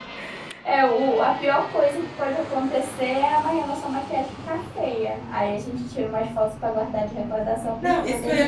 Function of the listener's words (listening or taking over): taking over